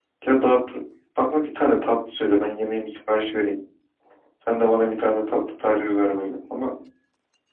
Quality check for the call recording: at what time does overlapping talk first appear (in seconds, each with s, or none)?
none